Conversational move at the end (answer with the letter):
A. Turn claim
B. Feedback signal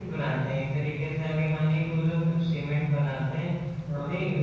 B